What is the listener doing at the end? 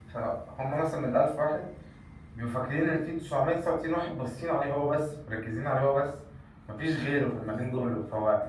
listening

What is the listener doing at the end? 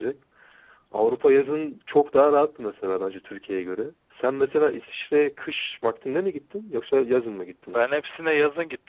taking over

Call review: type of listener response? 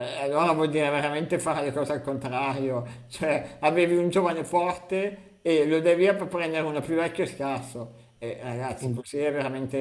listening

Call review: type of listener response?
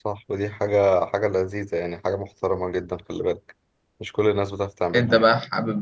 taking over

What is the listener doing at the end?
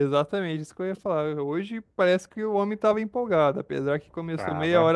listening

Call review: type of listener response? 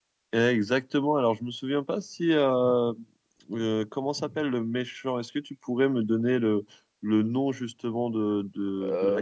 listening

